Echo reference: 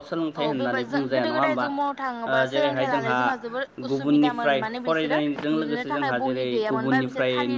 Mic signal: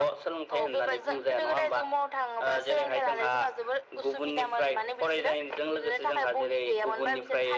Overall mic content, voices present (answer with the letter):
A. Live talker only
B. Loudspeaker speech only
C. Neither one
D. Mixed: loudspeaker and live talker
B